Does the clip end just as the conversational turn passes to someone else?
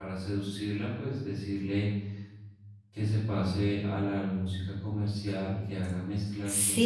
Yes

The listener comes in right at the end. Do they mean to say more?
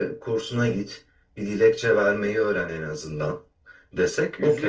No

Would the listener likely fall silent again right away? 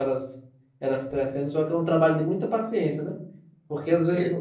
Yes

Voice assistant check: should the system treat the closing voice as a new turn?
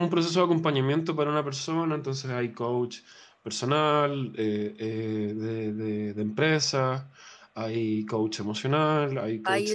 Yes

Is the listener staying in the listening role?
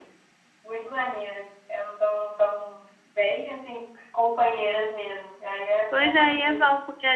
No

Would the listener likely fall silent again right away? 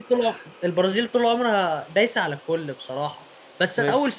Yes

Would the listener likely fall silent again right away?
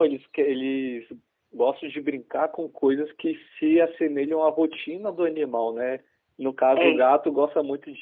Yes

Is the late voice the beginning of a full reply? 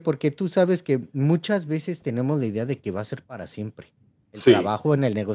No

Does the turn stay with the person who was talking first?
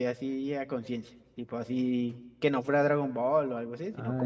No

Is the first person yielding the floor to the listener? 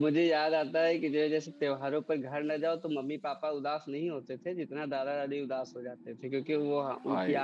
No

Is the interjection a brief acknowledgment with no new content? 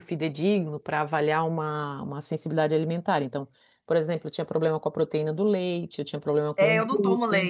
No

